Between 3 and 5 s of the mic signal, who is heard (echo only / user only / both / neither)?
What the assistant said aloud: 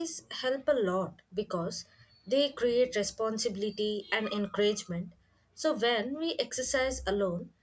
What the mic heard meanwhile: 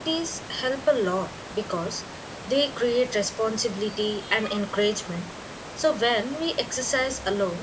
echo only